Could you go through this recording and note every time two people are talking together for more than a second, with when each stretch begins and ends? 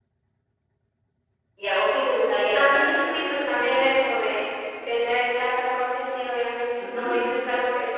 2.5-3.9

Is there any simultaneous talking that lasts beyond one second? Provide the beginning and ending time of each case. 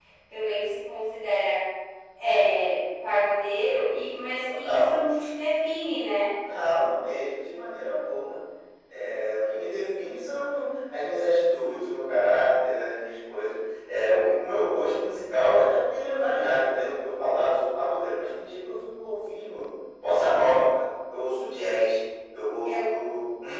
none

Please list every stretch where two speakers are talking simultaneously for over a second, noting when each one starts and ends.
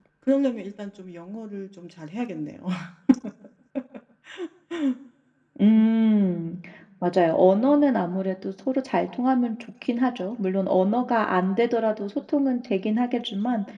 none

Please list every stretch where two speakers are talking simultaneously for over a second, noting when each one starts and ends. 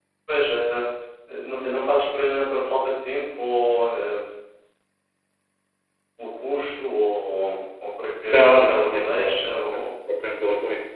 8.3-9.8

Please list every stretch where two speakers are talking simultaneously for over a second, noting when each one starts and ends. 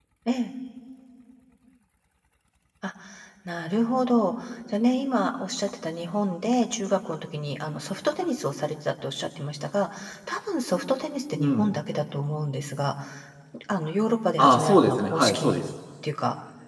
14.4-15.6

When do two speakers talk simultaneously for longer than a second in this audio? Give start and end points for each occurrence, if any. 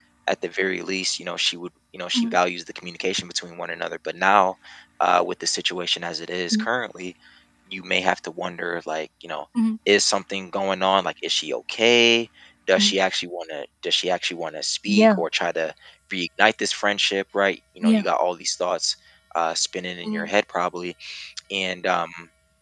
none

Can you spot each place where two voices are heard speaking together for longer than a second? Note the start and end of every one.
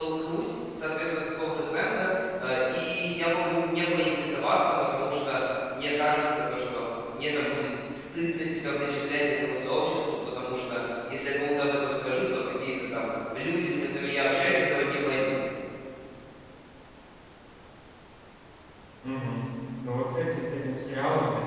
none

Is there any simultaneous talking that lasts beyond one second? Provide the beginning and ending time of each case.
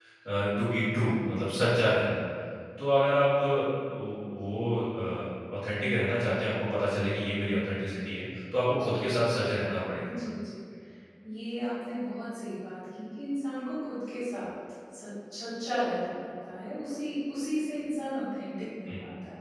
none

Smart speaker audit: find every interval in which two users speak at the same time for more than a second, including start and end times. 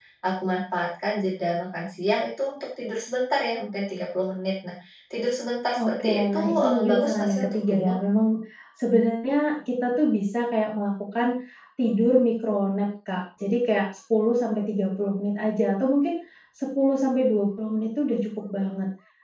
5.8-7.9

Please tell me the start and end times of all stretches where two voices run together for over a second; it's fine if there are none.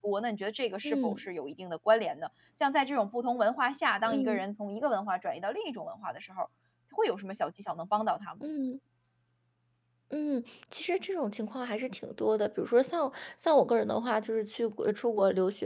none

